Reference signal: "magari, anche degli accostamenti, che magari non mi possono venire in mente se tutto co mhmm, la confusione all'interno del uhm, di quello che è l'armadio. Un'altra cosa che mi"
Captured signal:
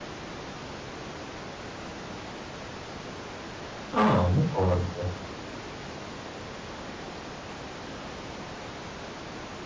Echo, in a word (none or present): none